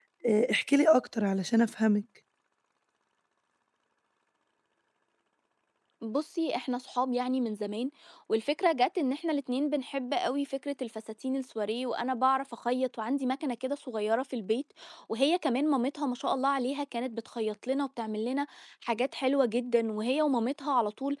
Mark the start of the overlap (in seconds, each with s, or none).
none